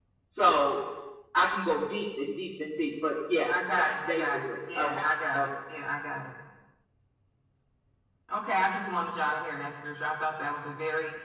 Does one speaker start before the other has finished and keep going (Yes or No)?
Yes